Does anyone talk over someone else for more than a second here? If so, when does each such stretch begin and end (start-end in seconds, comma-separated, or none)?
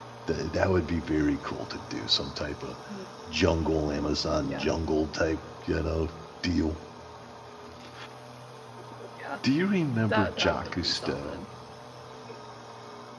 10.1-11.4